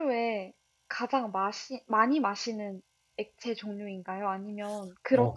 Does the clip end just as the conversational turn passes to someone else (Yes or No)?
Yes